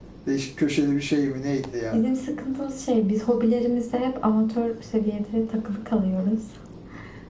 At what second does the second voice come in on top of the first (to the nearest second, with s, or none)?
none